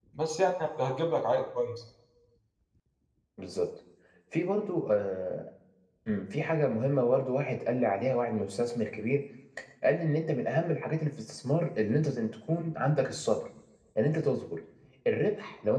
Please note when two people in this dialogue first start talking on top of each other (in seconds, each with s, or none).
none